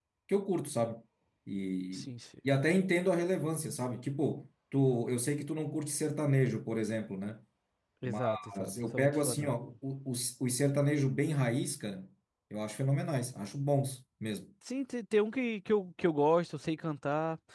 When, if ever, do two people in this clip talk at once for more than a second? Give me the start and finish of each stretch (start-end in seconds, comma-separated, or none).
8.1-9.6